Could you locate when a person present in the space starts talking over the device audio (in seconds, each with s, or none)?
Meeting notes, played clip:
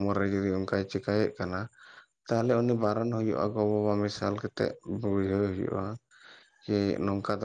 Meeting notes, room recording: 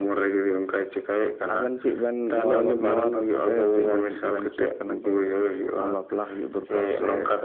1.5 s